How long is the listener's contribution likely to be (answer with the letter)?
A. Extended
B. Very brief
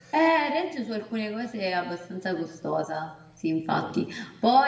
B